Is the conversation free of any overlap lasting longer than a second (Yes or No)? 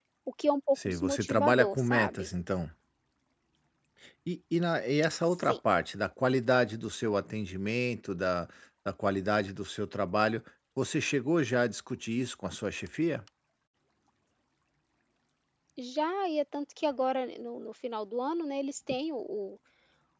No